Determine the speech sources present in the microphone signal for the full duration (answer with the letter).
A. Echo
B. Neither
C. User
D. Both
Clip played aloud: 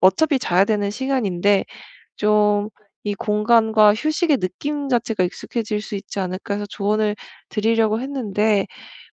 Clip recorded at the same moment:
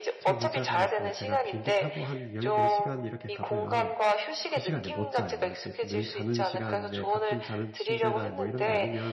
D